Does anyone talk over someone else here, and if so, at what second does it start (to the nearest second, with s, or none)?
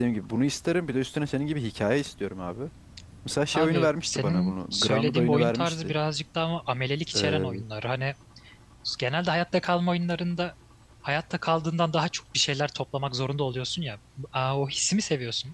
4 s